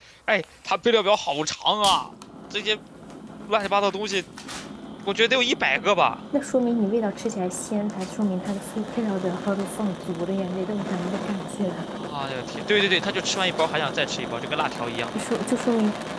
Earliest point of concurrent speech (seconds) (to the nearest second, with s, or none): none